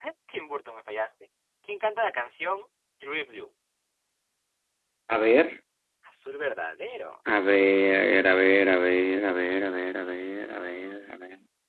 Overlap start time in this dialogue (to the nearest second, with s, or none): none